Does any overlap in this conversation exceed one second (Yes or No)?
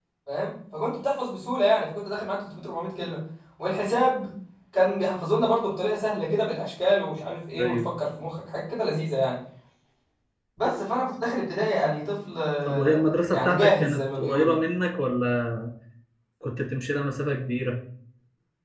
Yes